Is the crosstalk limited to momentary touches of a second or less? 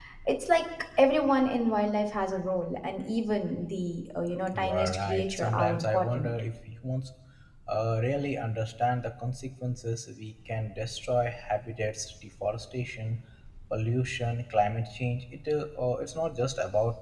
No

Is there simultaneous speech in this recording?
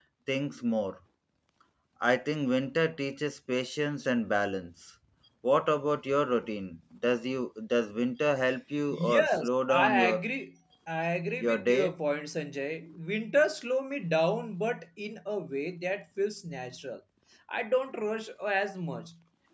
Yes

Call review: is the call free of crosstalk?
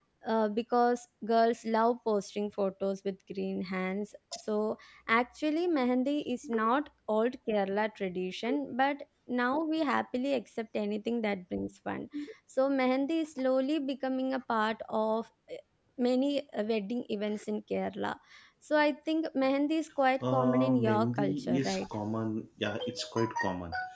No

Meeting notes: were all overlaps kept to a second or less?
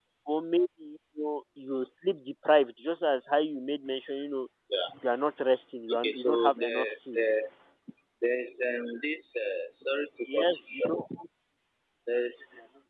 No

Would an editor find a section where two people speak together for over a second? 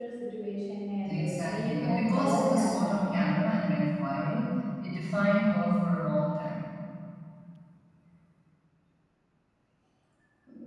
Yes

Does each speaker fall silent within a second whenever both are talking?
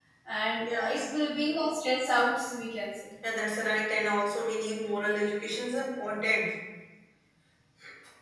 Yes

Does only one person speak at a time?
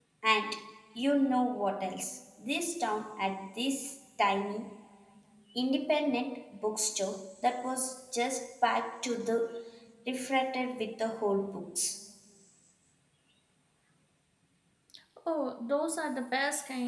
Yes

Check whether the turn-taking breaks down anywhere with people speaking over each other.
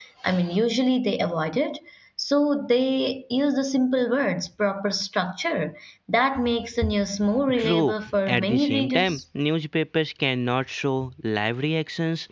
Yes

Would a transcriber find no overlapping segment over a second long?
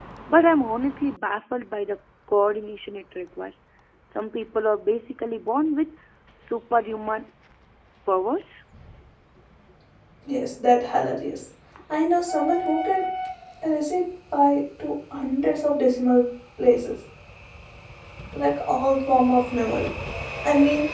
Yes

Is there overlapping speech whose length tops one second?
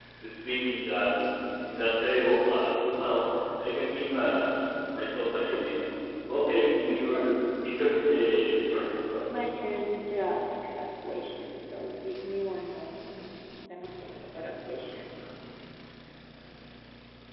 No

